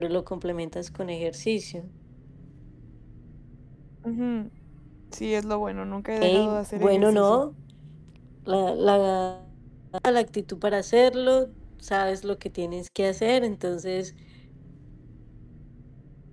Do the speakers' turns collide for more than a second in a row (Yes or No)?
Yes